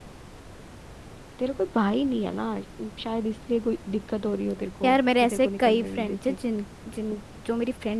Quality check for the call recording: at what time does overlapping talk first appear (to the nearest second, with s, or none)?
5 s